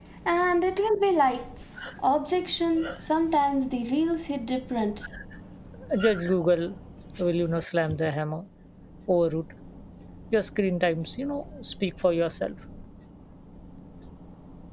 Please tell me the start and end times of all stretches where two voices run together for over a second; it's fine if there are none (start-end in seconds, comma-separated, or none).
none